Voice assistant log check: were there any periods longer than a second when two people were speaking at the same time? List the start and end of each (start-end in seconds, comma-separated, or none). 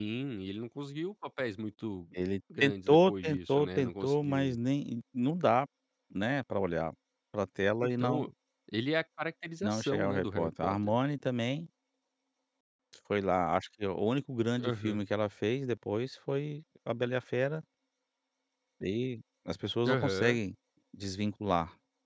2.6-4.6, 9.6-11.0